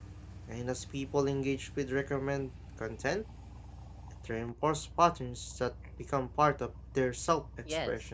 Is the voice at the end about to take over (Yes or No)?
Yes